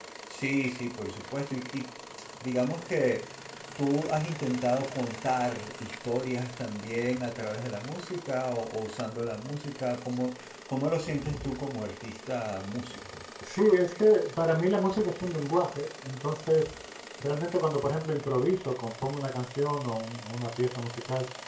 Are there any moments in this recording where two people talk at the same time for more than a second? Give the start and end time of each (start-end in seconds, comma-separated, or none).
none